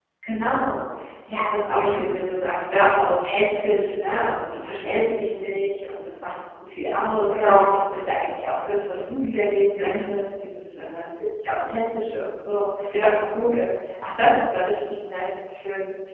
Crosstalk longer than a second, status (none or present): none